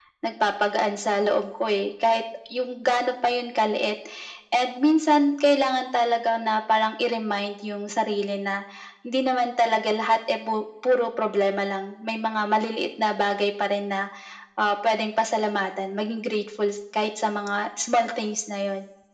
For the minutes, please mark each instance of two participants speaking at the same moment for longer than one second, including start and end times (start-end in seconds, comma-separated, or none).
none